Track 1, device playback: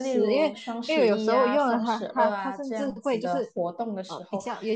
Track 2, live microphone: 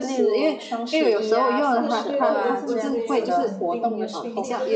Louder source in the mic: echo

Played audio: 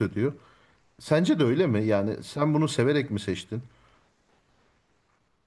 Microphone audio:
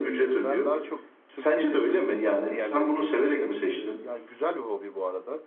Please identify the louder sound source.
echo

